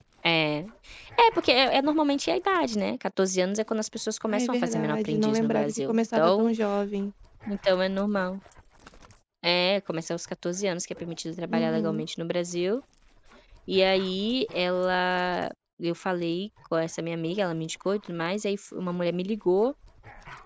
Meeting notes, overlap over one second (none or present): present